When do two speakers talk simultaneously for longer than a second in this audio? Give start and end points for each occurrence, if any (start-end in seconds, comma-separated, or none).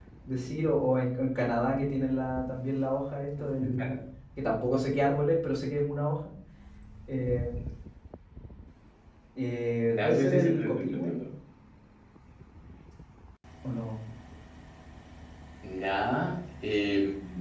9.9-11.1